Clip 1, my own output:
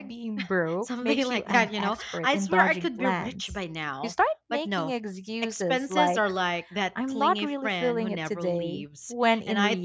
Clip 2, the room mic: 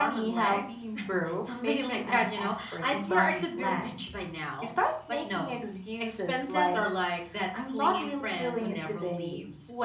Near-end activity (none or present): none